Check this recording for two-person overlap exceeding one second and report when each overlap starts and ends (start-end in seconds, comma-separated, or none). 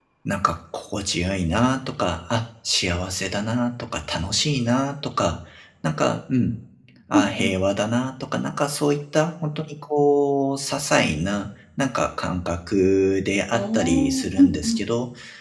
13.5-14.8